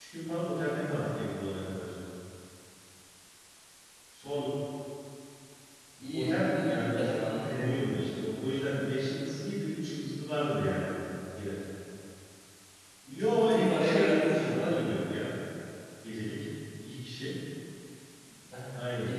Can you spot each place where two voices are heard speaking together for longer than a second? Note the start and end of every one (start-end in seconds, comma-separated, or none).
6.1-8.0, 13.1-14.9